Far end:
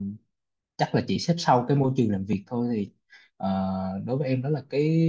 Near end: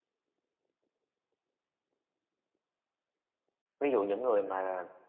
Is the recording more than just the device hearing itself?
Yes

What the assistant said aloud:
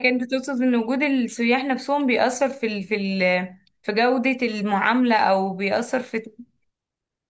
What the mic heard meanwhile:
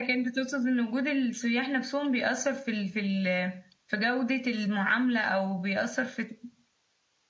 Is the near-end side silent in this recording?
Yes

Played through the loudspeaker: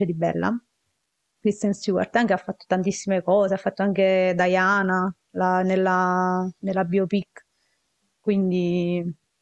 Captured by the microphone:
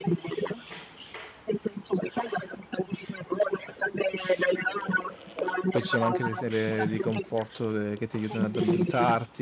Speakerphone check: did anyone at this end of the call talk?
Yes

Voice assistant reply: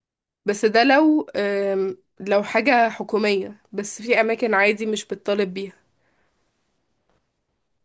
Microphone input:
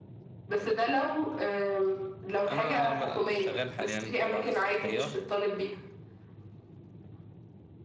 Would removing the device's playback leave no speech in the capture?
No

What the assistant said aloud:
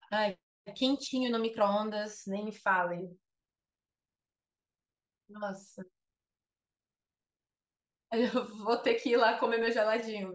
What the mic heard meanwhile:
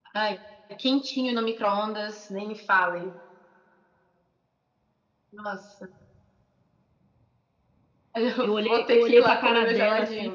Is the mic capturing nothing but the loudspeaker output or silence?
No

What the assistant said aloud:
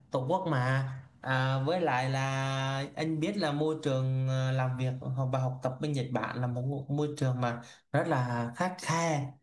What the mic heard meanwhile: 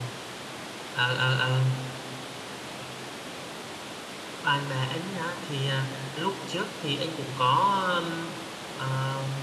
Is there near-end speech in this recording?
Yes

